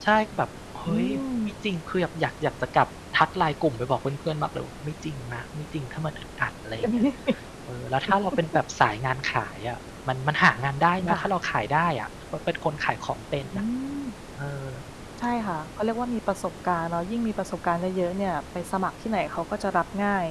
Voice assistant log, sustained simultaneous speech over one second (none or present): none